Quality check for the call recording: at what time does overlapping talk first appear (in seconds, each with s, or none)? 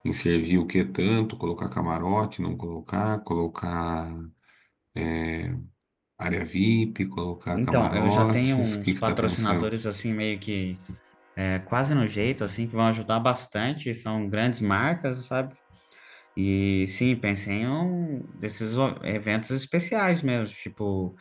7.5 s